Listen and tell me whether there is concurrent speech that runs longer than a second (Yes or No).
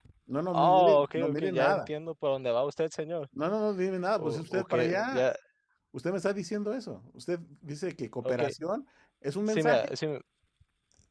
Yes